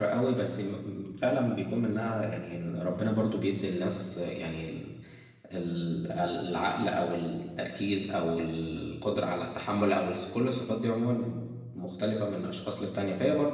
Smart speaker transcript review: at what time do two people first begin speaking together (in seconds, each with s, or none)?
none